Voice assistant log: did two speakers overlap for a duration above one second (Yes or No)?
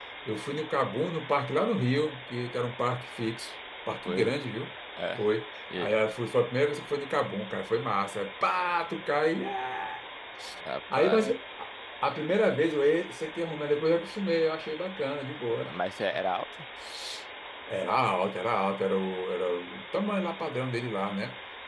No